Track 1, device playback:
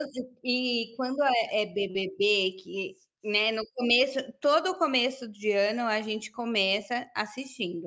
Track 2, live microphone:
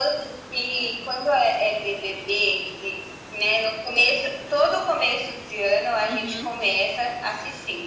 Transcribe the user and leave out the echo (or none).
Uhum.